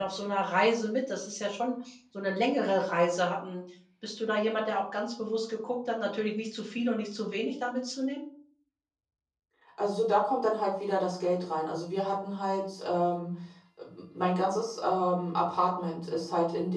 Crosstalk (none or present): none